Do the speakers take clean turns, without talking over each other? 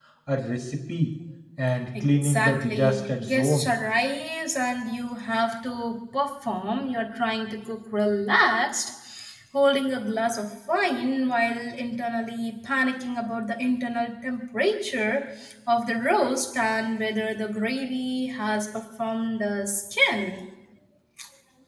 No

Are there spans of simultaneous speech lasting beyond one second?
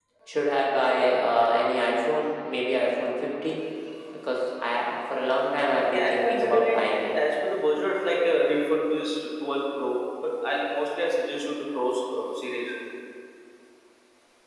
Yes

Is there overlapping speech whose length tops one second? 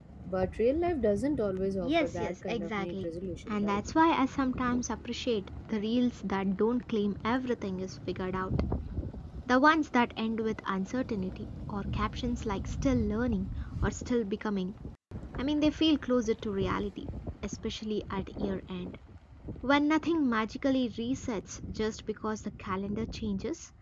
Yes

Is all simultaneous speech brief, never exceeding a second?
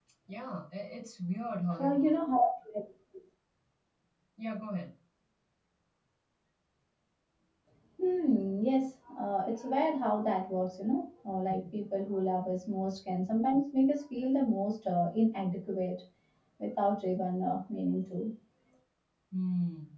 Yes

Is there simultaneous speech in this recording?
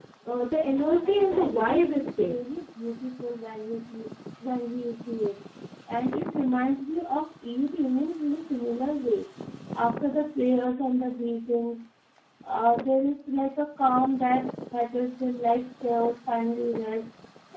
Yes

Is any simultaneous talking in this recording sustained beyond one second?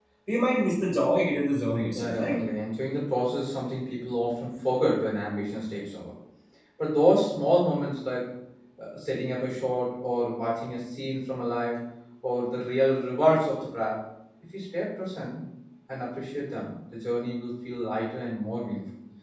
No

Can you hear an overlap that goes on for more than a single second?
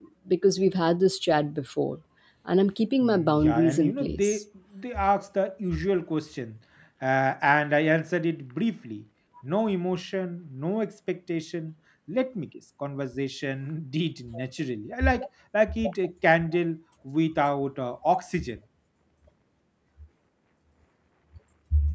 Yes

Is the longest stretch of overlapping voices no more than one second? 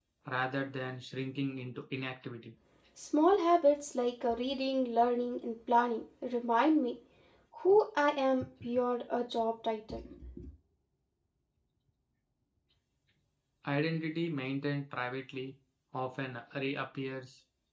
Yes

